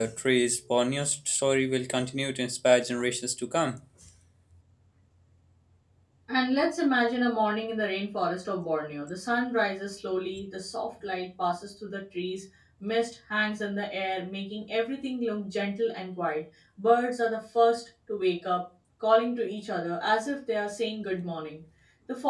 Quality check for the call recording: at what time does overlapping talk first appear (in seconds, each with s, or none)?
none